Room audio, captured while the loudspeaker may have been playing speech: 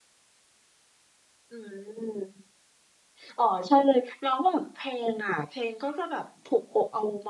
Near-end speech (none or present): none